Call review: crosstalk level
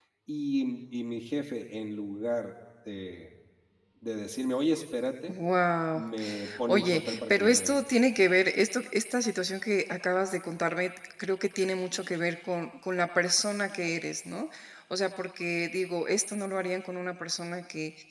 present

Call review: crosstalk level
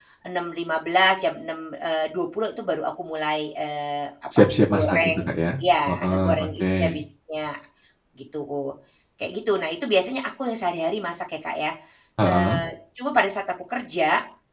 present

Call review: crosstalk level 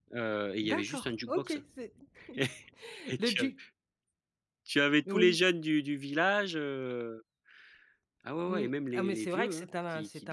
present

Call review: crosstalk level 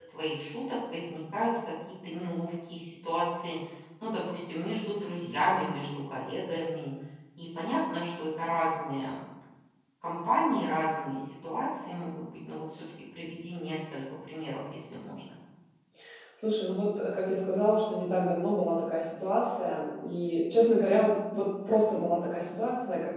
none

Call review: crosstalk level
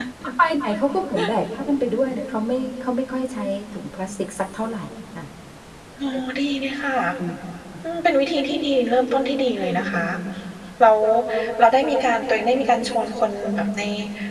none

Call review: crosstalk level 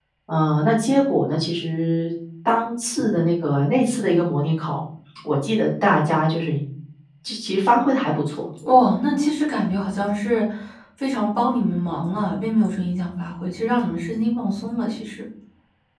none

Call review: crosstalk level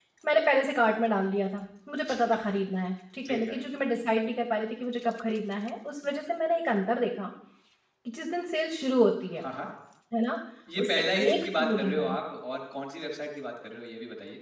present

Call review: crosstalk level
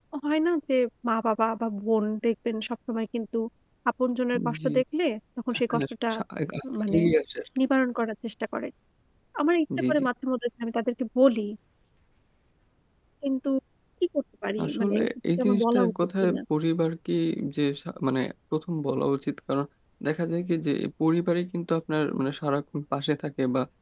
present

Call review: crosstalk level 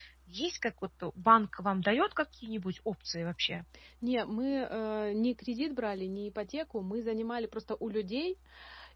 none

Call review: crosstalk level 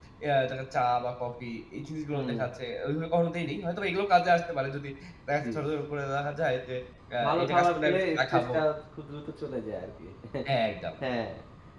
present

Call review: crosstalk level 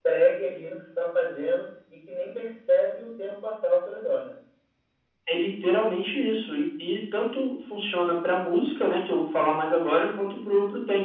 none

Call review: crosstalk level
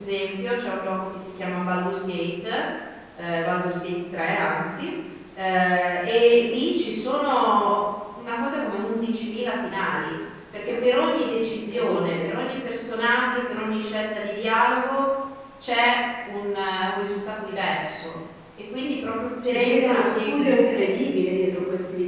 present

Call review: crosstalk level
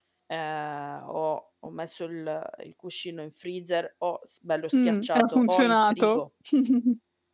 present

